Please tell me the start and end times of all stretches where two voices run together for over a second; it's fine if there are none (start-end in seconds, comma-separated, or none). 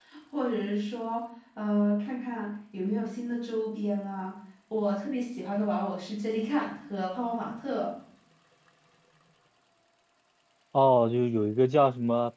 none